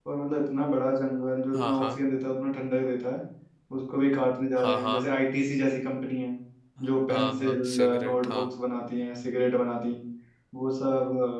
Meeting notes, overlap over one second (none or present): present